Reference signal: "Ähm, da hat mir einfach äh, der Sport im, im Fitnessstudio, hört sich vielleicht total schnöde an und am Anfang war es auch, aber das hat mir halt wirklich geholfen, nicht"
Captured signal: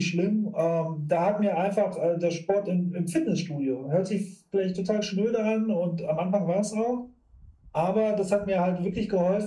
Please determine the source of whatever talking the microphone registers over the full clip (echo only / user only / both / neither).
echo only